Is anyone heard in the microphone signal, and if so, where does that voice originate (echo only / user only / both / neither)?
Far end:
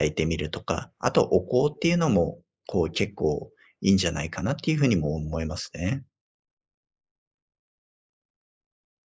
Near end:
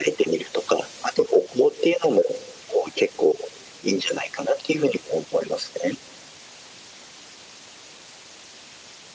echo only